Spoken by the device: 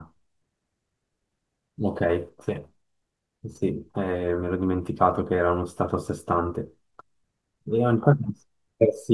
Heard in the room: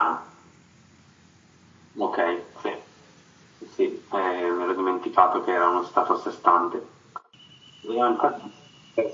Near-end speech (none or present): none